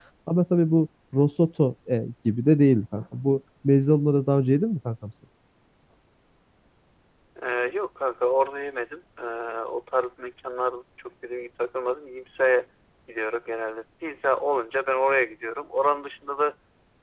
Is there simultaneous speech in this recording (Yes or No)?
No